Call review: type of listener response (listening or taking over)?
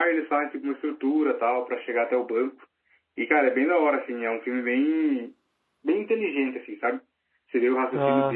listening